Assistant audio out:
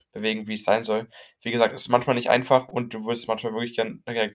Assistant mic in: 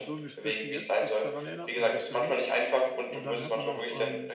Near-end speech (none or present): present